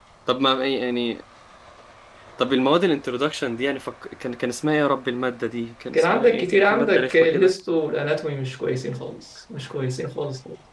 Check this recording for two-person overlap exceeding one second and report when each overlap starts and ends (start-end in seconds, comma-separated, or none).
5.9-7.5